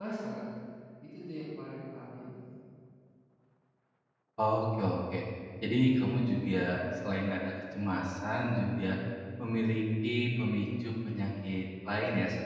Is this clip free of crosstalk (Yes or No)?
Yes